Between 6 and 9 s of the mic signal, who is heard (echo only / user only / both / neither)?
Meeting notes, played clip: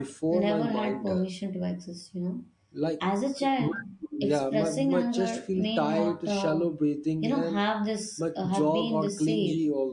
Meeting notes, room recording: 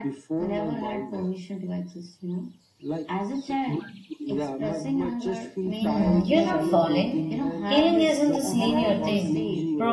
both